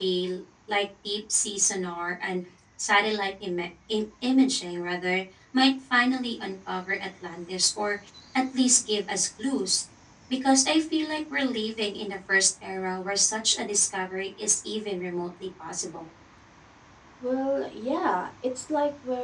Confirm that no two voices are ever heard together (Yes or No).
Yes